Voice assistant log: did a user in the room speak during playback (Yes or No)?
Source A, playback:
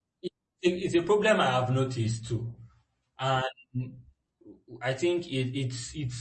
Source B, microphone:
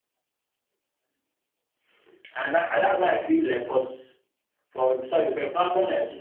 Yes